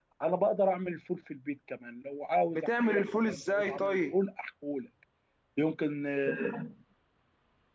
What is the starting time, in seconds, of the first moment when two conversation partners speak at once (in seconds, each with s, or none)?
2.5 s